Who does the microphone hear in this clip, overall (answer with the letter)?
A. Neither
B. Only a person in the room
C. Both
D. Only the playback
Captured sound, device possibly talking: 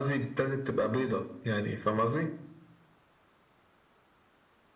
D